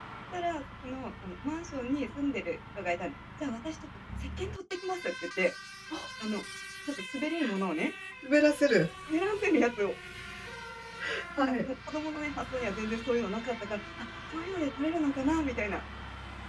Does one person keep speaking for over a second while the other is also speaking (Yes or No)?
No